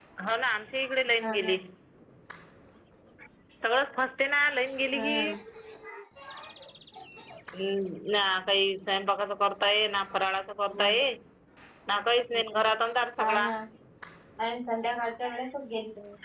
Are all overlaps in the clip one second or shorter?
Yes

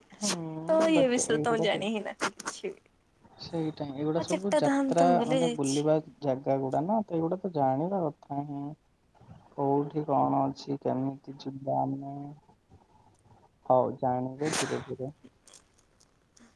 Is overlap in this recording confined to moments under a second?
No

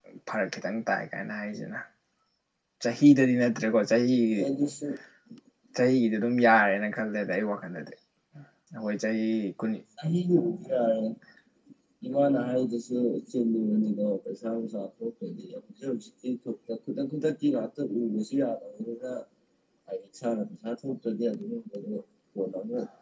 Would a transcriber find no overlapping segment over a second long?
Yes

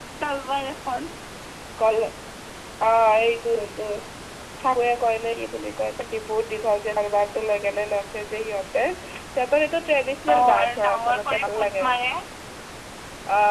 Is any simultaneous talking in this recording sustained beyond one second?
Yes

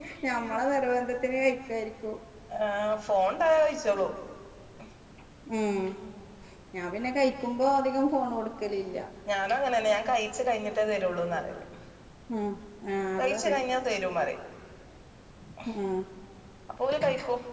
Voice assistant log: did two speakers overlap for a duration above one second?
No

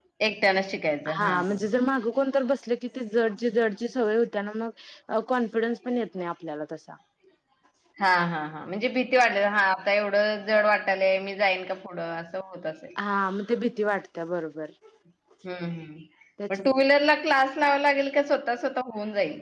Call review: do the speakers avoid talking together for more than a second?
Yes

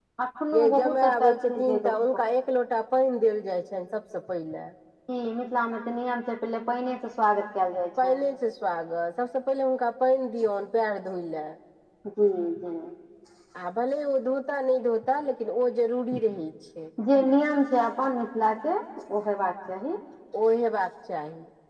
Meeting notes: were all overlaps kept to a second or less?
No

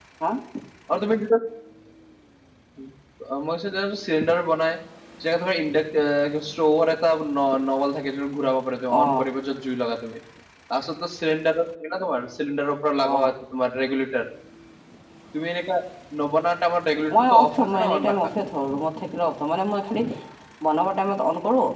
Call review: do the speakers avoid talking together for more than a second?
No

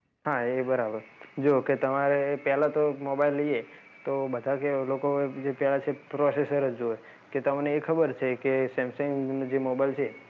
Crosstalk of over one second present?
No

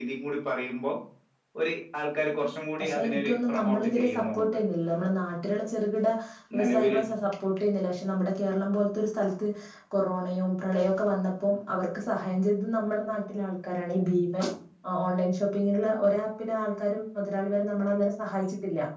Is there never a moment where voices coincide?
No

